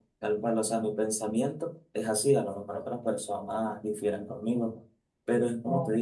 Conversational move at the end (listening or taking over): listening